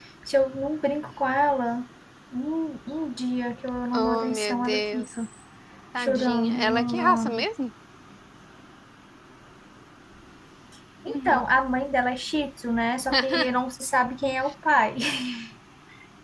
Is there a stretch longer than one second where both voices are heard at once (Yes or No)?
Yes